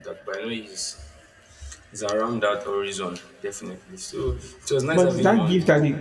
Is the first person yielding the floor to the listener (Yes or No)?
Yes